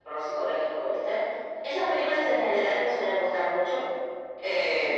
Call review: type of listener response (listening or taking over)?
taking over